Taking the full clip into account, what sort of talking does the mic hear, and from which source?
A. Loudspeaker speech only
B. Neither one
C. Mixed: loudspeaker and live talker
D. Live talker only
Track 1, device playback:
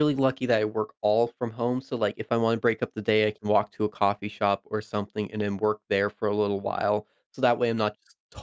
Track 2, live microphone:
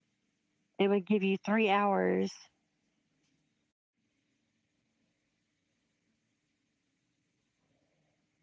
D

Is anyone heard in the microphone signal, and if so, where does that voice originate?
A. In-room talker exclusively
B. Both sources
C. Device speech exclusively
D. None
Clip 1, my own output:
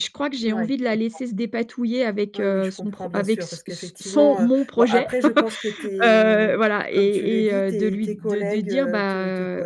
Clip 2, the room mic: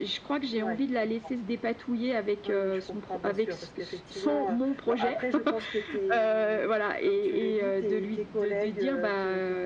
C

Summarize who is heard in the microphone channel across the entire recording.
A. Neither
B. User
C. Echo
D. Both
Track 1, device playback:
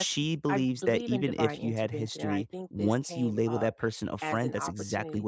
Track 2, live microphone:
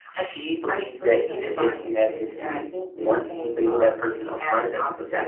C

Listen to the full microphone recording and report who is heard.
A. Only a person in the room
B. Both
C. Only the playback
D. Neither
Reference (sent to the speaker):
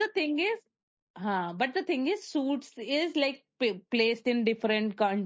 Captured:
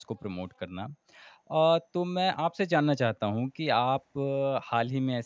A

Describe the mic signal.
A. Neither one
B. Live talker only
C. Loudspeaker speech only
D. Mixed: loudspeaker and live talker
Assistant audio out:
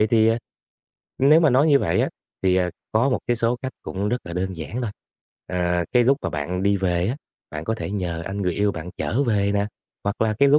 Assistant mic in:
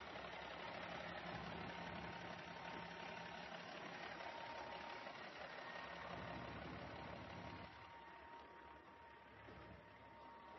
A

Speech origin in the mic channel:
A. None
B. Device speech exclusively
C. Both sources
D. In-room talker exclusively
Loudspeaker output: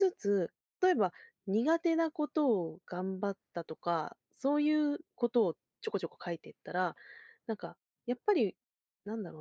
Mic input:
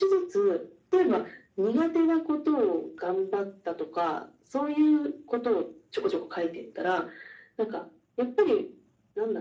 B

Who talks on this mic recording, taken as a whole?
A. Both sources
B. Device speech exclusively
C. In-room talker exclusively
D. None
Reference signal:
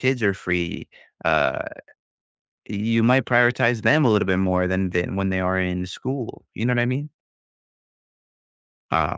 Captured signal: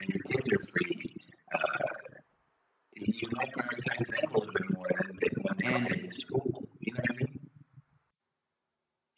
A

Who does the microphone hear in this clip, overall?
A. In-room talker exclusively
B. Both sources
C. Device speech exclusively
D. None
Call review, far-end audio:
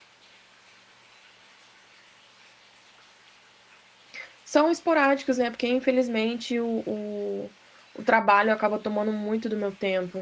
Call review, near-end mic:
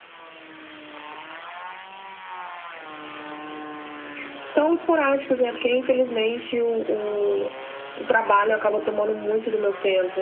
C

